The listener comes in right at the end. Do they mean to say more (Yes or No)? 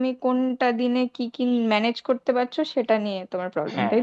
Yes